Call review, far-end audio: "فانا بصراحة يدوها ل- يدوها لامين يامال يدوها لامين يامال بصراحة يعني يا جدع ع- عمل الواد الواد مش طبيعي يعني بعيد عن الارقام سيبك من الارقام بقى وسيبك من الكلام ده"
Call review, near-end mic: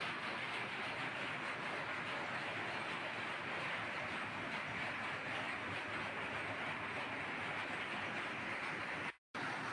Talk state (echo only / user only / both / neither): neither